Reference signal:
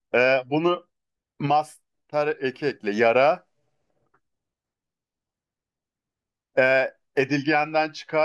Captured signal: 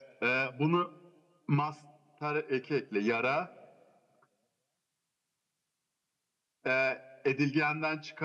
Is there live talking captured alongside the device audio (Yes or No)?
No